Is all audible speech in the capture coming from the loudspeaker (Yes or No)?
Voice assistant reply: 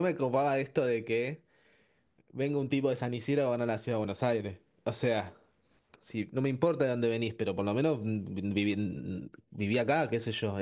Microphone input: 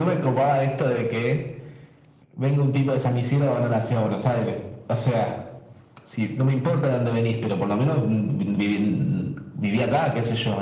Yes